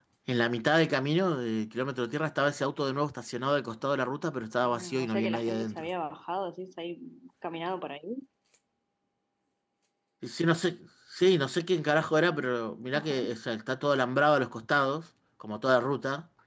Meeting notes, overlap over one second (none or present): present